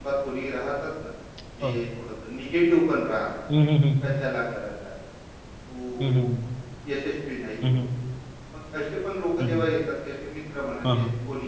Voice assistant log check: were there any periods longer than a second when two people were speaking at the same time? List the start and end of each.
none

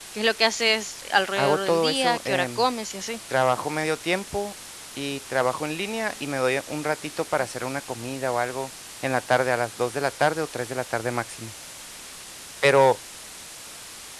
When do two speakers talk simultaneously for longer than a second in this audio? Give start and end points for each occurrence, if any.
1.4-2.6

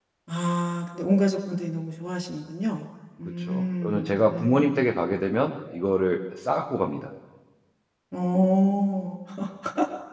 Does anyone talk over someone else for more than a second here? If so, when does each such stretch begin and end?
3.4-4.8

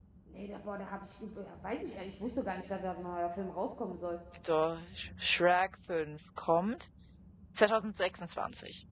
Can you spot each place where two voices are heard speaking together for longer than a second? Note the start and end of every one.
none

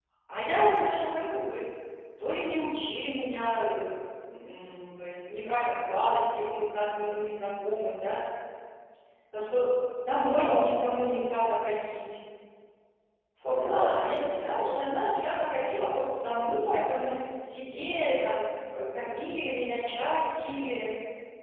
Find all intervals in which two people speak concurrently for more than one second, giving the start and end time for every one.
13.5-15.1

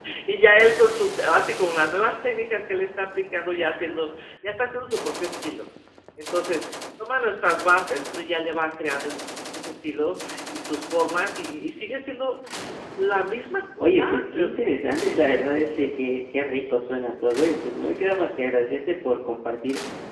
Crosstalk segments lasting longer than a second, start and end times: 13.8-15.9

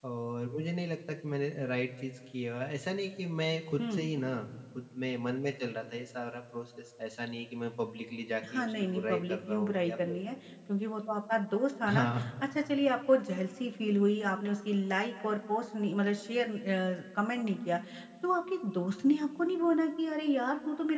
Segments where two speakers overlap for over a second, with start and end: 8.5-10.2

